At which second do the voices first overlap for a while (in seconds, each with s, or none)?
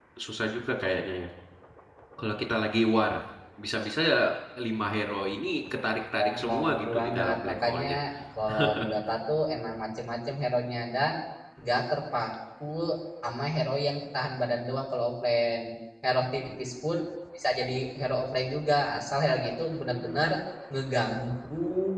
6.5 s